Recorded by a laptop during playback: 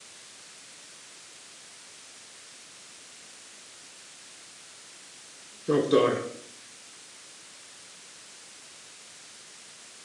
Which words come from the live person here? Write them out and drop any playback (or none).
Çok doğru.